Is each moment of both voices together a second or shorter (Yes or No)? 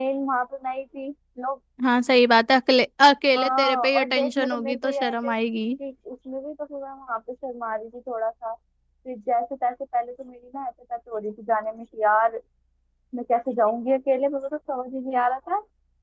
No